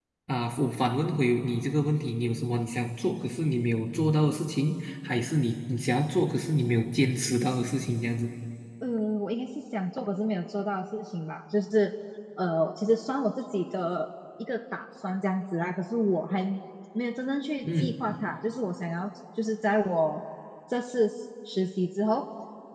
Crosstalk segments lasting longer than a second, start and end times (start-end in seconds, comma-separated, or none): none